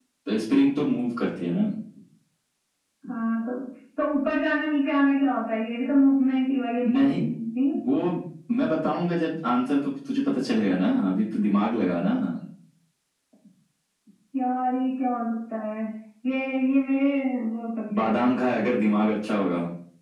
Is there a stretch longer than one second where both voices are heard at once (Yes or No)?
No